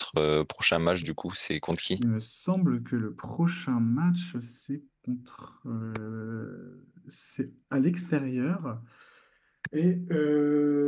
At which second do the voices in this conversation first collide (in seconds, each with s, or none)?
none